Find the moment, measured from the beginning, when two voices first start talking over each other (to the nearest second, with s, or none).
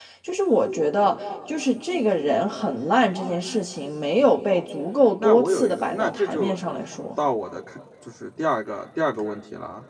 5 s